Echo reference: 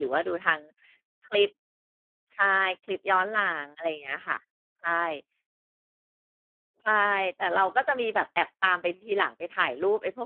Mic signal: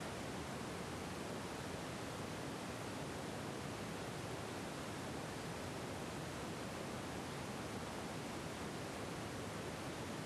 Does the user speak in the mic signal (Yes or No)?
No